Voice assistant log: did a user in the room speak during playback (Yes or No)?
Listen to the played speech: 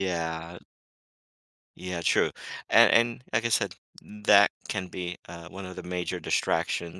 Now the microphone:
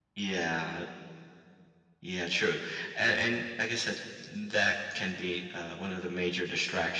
No